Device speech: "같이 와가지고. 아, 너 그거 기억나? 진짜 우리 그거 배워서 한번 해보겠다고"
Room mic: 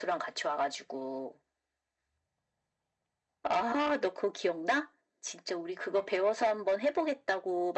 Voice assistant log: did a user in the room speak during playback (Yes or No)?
No